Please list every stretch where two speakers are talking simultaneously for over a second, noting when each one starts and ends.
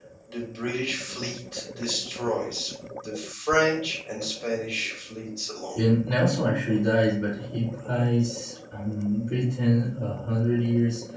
none

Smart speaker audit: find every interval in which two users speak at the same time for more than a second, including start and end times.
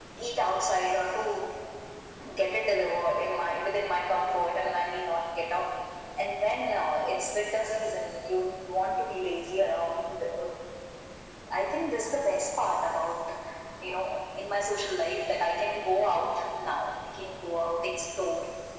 none

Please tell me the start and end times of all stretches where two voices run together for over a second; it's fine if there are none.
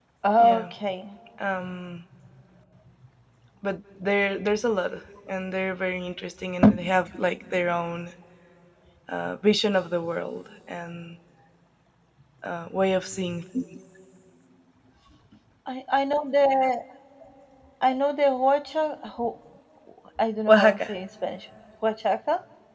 none

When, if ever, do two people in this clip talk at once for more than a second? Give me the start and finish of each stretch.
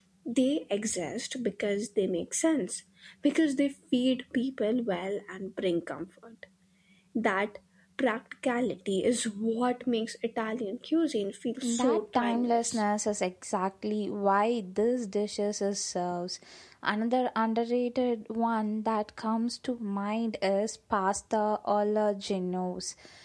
11.6-12.8

